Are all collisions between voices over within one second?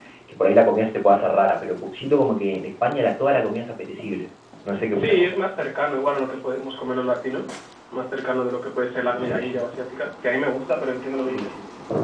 Yes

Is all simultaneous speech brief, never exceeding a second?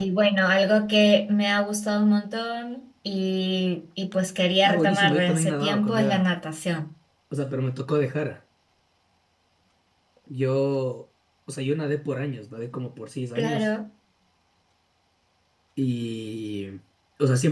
No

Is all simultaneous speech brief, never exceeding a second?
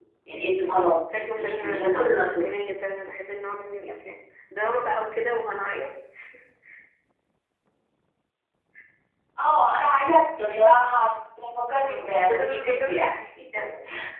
No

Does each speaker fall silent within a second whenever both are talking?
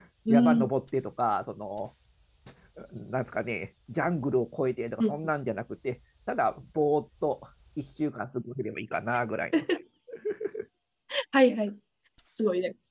Yes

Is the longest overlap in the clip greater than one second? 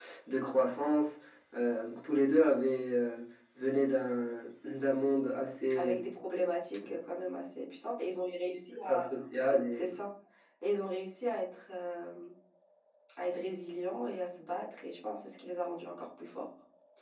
No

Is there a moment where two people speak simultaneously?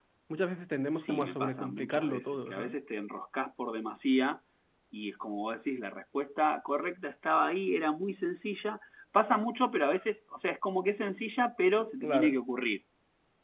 Yes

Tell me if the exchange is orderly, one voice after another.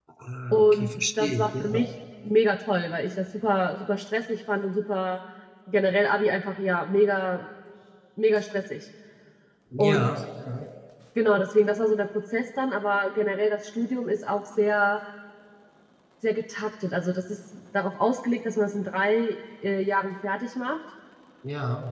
No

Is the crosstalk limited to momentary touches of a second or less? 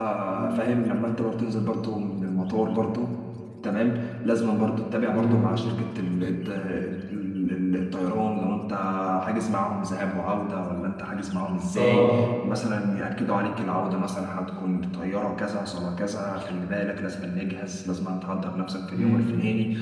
Yes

